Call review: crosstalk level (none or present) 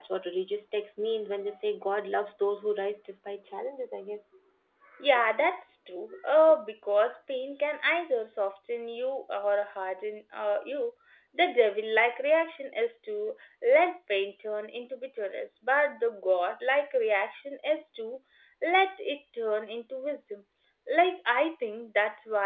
none